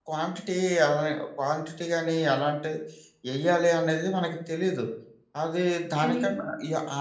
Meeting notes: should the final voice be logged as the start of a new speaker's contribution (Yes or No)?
No